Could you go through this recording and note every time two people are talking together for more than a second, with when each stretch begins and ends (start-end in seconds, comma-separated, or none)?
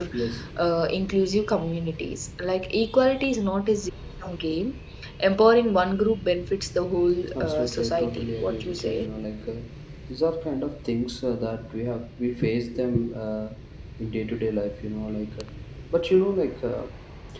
7.4-9.1